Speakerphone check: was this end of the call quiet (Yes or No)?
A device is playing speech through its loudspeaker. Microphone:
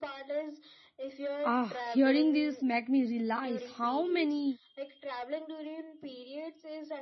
No